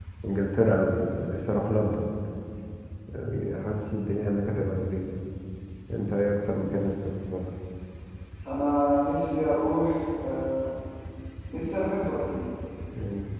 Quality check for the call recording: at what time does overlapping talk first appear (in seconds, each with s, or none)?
none